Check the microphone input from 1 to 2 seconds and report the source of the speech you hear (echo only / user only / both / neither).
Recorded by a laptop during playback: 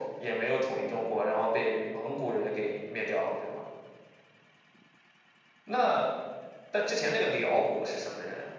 echo only